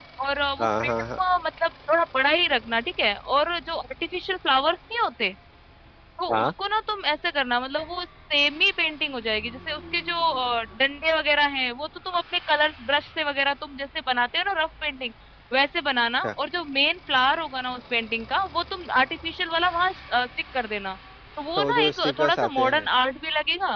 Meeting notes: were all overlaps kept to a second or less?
No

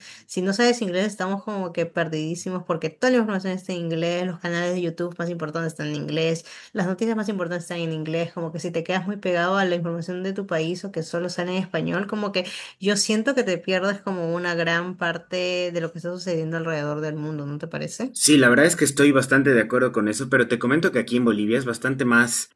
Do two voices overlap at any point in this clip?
No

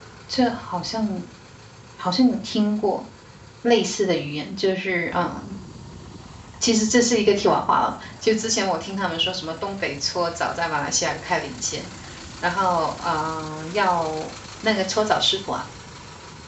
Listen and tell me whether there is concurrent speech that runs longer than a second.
No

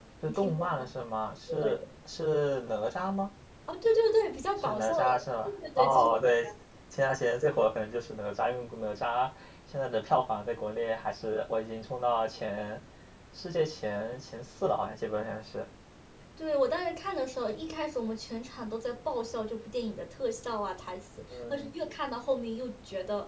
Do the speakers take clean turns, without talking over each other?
No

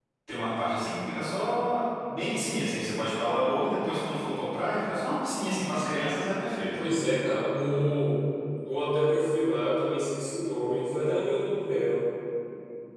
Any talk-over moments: No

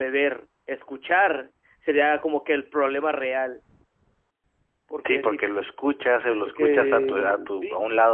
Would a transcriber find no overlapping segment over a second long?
No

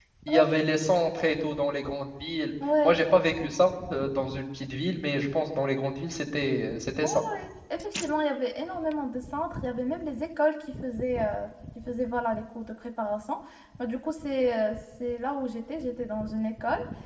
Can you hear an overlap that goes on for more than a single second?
No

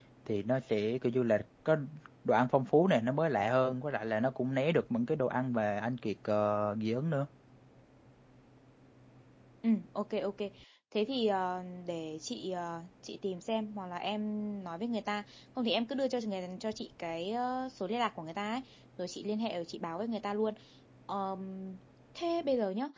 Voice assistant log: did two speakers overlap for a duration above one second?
No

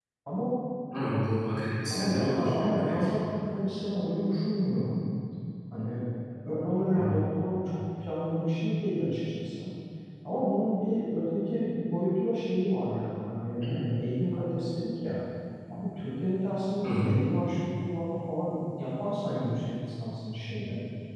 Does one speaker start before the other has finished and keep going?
Yes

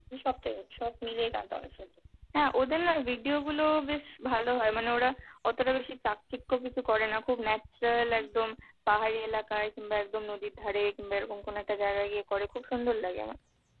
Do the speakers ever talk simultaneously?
No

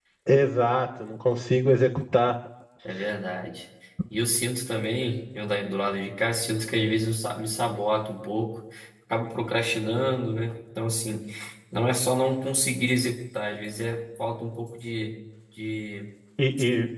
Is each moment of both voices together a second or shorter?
Yes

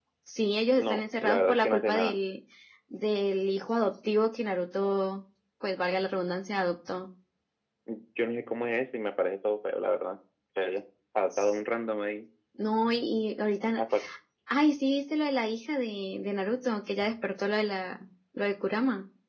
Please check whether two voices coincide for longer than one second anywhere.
Yes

